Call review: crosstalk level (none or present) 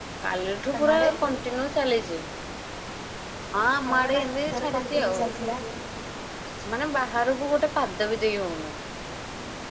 present